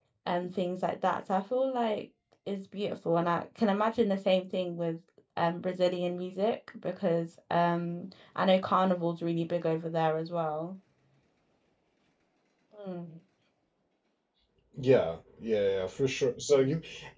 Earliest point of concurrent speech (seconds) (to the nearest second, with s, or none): none